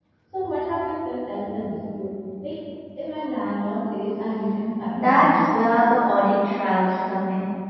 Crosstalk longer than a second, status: none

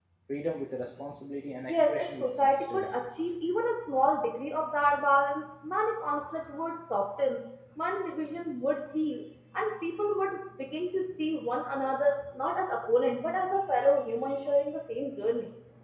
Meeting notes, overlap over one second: present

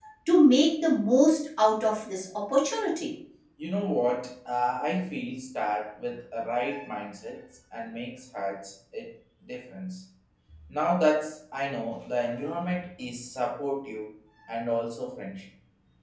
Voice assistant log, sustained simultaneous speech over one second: none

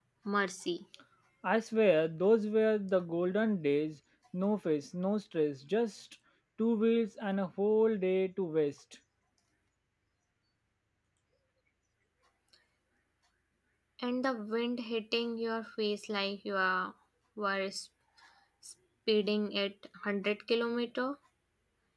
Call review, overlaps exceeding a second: none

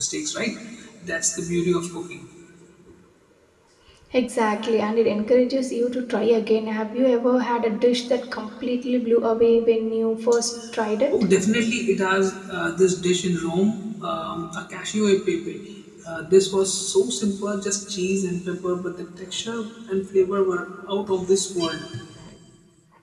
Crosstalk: none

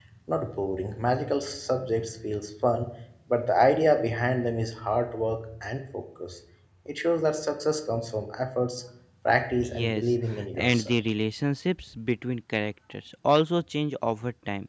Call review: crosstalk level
present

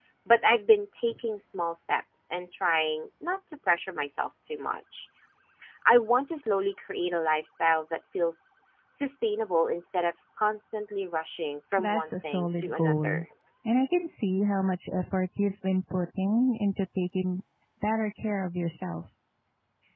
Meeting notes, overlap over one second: present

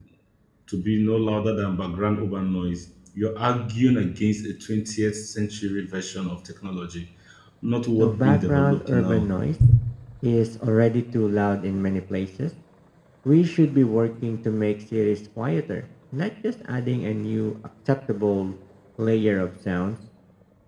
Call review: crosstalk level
present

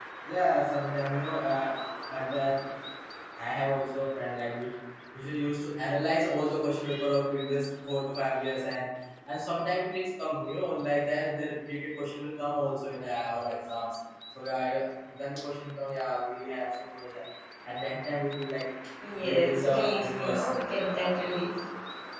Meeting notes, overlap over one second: present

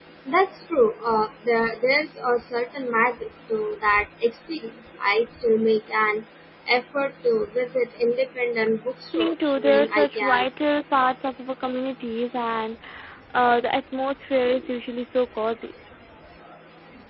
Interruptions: present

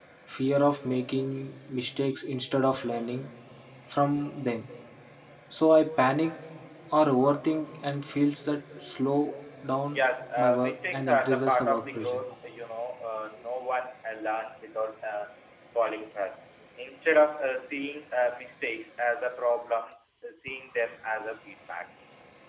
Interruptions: present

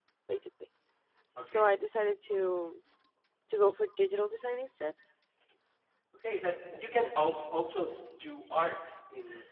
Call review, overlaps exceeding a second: none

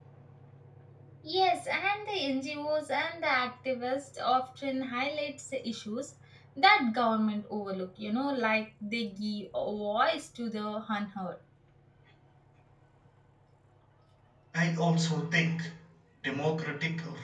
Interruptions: none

